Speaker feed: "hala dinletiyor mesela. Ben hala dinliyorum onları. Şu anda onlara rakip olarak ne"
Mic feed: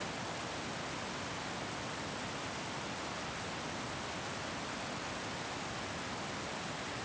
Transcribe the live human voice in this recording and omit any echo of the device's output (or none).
none